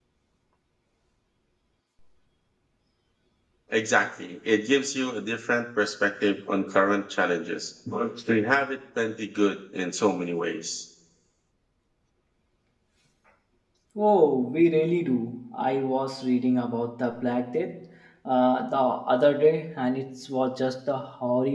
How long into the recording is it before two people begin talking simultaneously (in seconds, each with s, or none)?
none